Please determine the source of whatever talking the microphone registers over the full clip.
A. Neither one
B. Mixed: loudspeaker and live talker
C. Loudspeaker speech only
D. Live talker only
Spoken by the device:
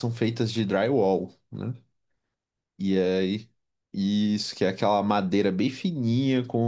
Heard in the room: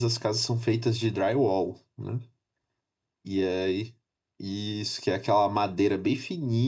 C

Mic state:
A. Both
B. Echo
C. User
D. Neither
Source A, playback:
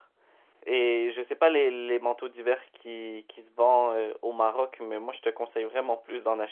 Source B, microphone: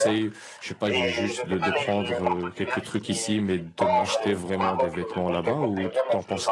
A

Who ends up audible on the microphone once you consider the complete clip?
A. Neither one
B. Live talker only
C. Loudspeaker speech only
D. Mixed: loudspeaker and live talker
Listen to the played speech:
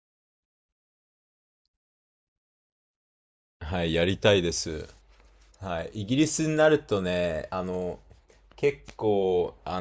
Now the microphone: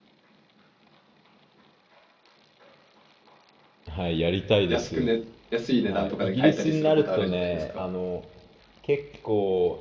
D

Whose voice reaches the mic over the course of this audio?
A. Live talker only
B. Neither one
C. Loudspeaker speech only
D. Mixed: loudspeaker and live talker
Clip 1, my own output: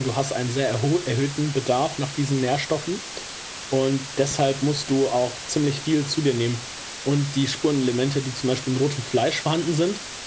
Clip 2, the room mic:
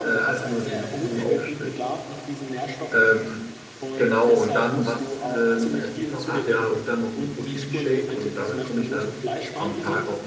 D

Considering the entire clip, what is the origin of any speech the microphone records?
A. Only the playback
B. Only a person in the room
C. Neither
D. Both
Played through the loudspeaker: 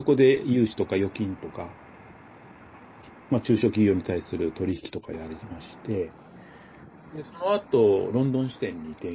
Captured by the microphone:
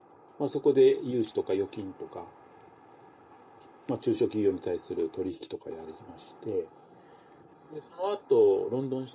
A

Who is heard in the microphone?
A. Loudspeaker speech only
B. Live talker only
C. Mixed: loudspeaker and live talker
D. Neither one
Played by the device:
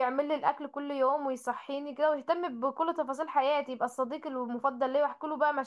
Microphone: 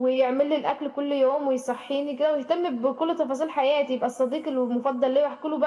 A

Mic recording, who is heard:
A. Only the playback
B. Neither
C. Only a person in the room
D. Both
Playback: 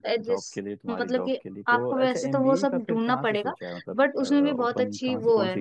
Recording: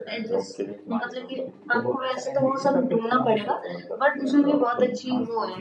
A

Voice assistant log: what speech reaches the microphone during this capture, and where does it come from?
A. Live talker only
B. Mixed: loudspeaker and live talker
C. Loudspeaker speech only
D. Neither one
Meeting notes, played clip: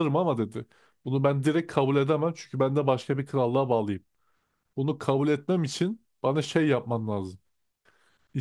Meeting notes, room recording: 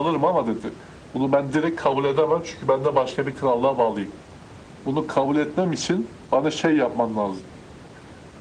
C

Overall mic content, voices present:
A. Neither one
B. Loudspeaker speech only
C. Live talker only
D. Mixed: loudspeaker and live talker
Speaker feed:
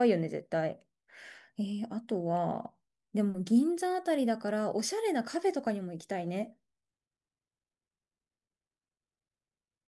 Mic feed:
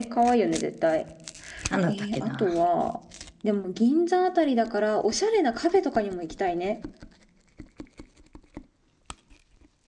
D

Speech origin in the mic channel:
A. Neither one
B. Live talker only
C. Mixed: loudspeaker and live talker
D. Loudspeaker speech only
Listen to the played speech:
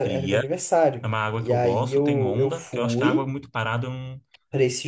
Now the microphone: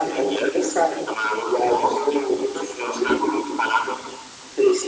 D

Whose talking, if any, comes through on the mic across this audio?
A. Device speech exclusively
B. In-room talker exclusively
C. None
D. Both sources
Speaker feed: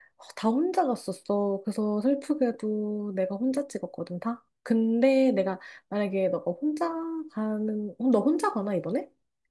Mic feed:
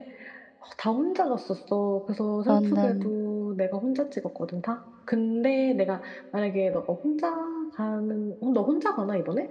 D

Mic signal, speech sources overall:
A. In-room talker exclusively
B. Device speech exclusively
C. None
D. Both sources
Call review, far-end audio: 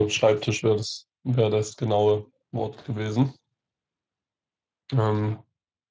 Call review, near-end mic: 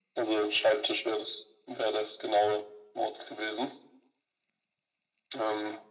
B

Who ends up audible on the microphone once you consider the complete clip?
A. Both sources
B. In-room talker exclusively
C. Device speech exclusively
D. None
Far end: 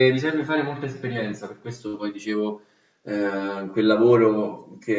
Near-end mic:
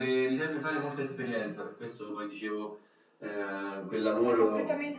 A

